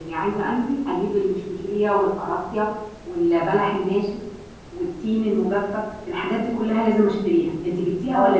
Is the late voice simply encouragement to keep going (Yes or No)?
No